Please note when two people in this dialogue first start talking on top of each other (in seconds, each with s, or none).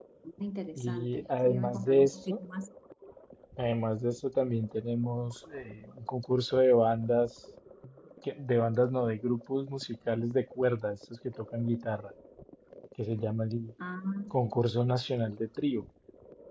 0.8 s